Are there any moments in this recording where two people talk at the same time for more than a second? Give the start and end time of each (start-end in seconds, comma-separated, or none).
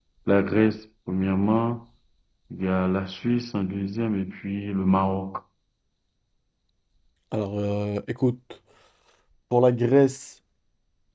none